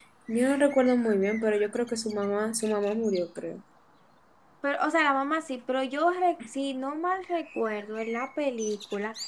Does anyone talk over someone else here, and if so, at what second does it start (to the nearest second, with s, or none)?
none